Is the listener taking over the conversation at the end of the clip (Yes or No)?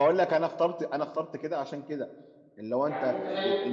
Yes